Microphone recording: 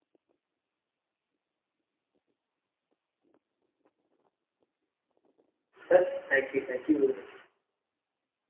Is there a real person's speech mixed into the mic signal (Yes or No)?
Yes